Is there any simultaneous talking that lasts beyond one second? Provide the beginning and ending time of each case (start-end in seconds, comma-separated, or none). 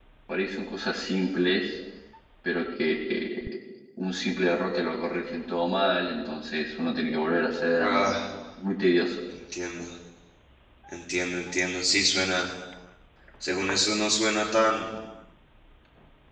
none